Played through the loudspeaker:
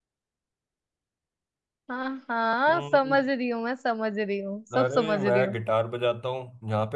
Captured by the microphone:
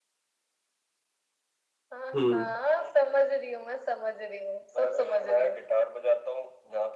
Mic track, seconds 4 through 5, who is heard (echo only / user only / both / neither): echo only